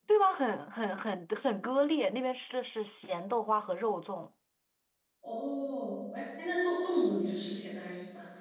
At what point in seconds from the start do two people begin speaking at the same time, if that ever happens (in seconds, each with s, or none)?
none